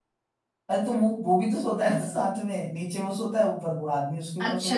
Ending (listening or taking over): taking over